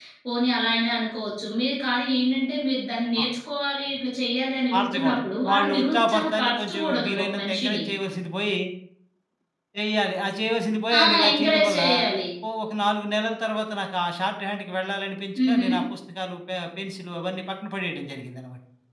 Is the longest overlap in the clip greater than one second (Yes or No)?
Yes